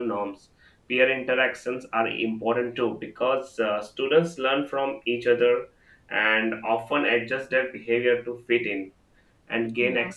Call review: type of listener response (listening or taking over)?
listening